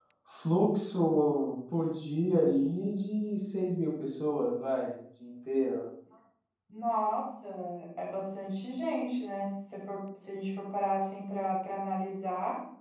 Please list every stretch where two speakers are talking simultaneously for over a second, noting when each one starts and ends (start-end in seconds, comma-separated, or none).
none